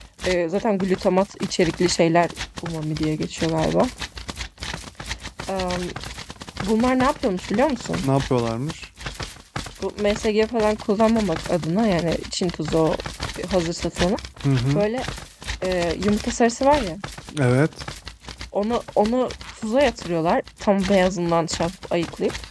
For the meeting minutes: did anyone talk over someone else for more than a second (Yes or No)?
No